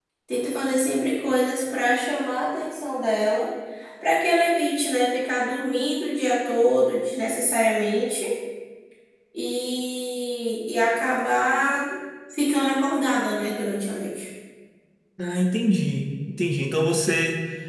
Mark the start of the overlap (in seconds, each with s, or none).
none